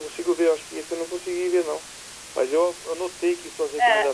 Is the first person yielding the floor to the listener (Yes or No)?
No